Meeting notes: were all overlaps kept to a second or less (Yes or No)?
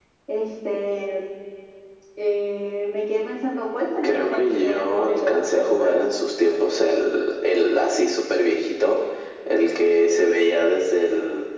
No